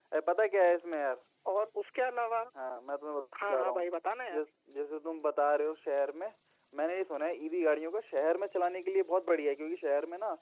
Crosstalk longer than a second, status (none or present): none